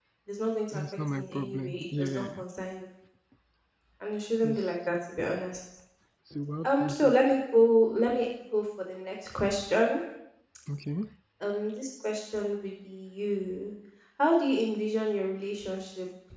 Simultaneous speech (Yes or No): Yes